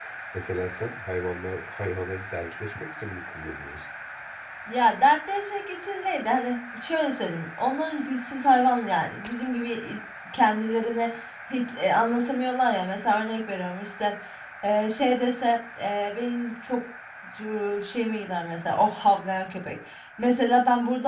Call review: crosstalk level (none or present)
none